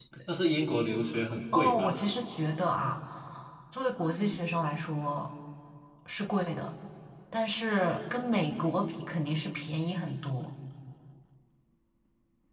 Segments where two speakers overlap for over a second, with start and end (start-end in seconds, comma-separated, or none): none